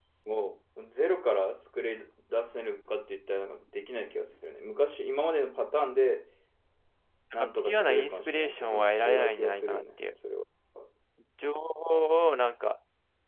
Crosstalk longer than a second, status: present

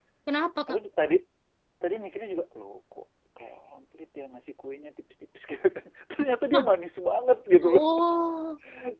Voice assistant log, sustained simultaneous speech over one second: none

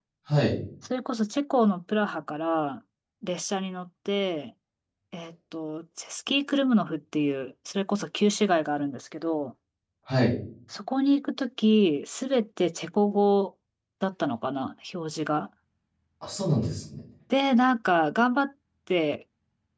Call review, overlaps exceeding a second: none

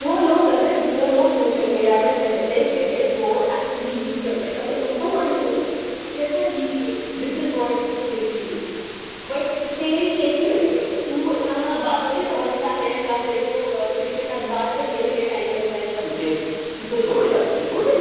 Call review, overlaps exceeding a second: none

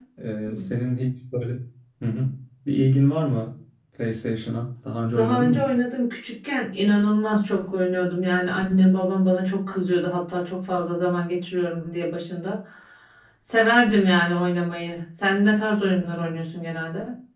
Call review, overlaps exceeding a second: none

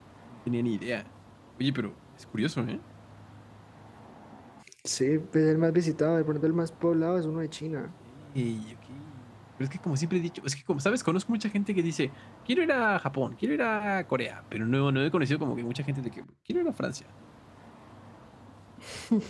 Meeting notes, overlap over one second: none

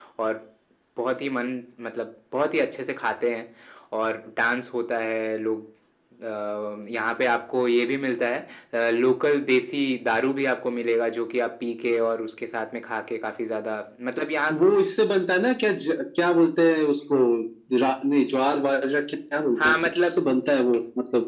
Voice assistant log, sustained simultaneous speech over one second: none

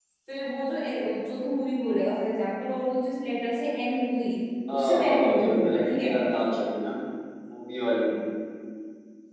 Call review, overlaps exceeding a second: present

